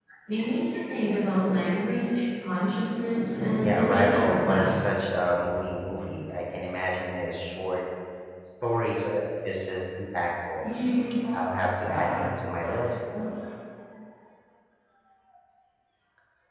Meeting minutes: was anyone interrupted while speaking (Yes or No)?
Yes